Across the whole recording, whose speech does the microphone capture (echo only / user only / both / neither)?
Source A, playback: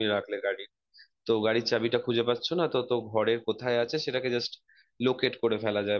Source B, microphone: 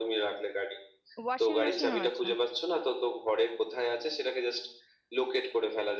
both